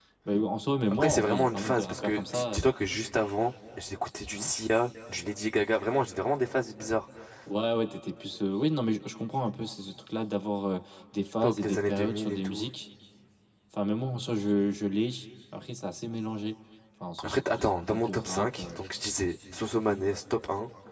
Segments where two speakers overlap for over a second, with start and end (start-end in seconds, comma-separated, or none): 0.9-2.6, 11.4-12.7, 17.2-18.8